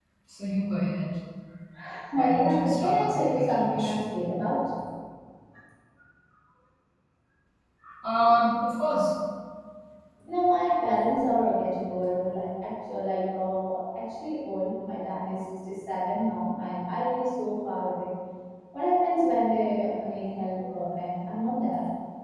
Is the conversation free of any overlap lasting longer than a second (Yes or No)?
No